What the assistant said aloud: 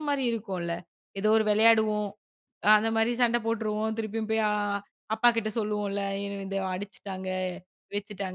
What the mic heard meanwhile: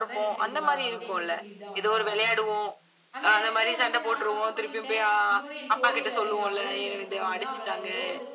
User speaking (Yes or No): Yes